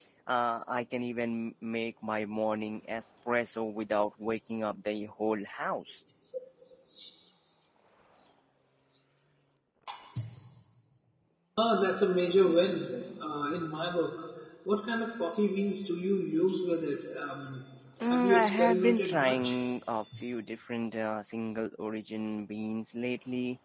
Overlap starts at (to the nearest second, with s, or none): 18 s